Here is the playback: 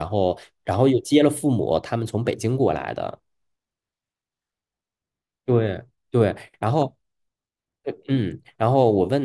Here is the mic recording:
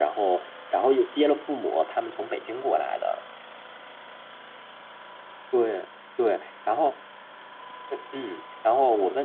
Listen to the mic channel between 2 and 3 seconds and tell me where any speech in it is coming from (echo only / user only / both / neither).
echo only